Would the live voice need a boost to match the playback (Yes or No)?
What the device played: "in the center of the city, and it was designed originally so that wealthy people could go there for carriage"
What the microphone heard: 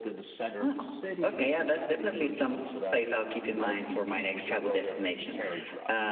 No